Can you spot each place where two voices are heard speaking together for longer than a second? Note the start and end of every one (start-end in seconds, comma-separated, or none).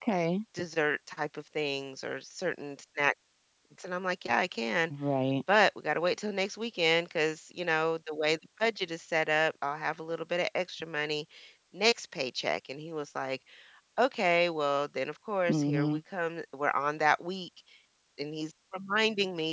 none